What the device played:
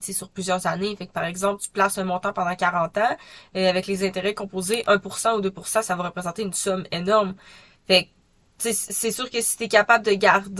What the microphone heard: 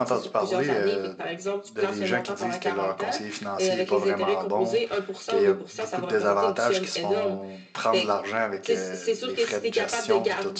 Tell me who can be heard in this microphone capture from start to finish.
both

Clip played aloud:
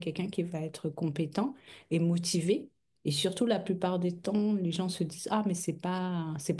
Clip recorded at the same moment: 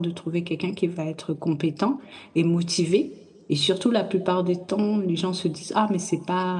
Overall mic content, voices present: echo only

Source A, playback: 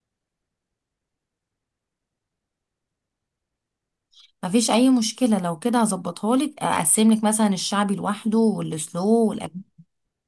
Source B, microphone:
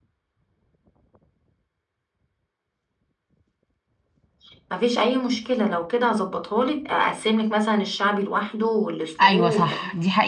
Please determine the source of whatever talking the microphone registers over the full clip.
both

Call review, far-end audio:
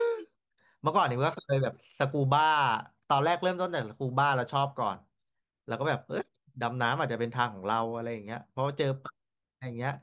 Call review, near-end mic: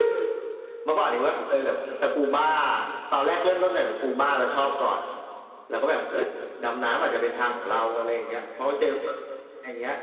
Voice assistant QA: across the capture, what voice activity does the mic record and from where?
echo only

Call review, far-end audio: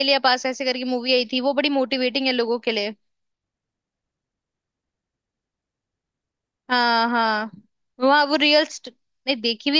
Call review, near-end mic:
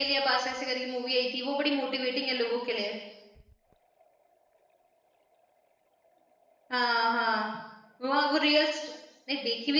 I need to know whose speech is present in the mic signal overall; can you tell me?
echo only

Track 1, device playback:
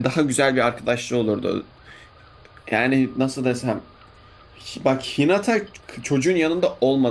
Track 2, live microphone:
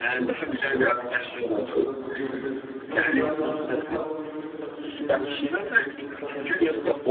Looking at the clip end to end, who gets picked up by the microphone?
both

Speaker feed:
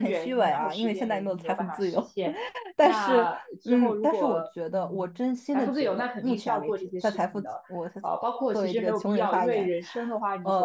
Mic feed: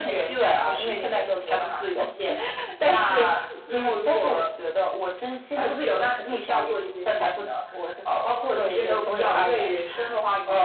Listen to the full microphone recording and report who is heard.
echo only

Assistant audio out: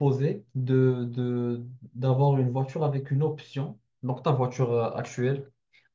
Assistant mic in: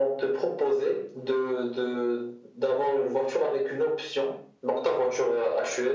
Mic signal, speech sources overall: echo only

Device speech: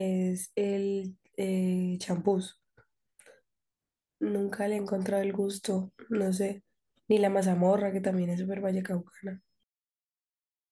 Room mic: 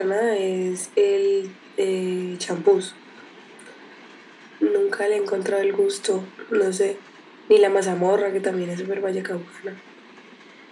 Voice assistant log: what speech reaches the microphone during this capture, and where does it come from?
echo only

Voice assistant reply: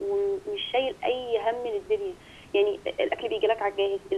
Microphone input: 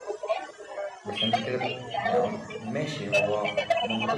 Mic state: both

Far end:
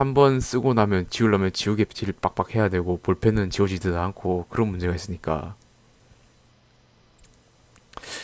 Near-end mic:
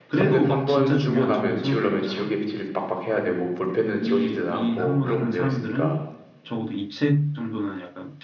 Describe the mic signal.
both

